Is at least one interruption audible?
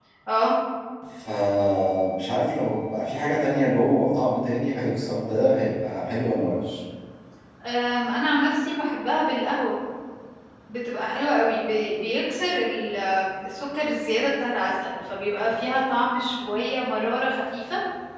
No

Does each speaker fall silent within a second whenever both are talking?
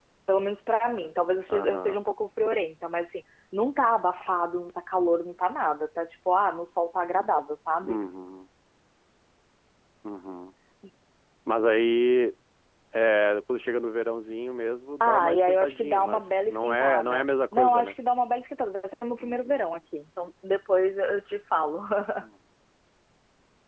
No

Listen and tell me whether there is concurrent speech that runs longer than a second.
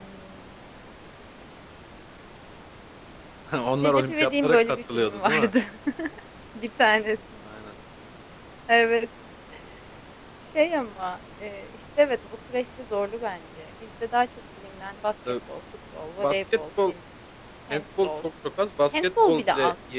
Yes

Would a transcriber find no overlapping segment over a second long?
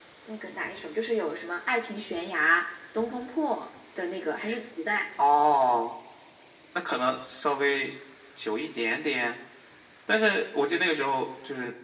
Yes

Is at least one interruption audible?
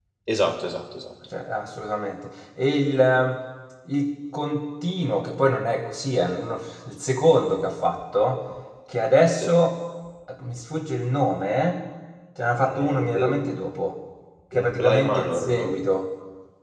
Yes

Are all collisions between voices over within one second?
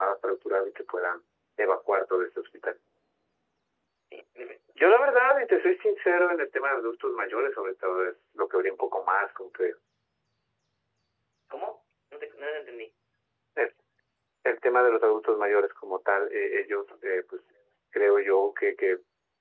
Yes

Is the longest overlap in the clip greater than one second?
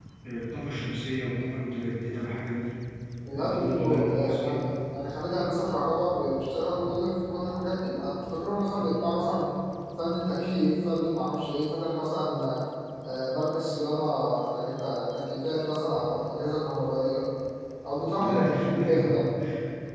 Yes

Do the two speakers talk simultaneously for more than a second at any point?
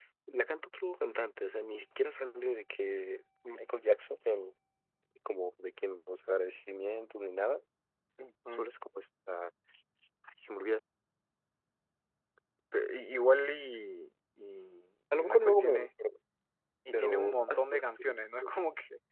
Yes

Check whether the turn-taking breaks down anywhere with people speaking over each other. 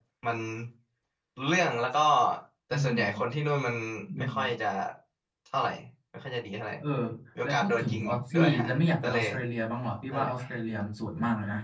Yes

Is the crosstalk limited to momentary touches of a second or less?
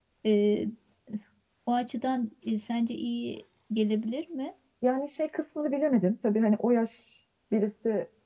Yes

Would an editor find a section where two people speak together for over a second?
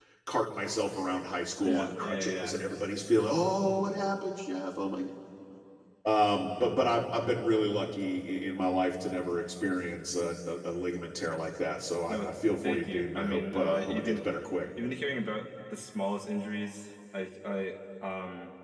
Yes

